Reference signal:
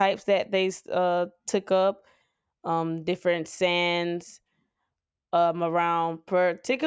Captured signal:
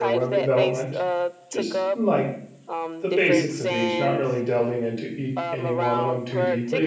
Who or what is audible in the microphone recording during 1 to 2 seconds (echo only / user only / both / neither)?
both